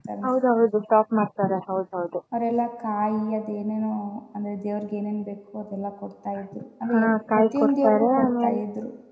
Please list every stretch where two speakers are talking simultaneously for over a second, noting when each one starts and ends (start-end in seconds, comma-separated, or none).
7.3-8.6